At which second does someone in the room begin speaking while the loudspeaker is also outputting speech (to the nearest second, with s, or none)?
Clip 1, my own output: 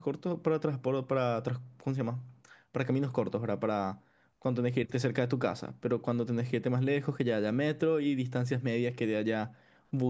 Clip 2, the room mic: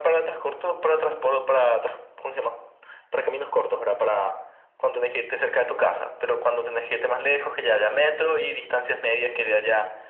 none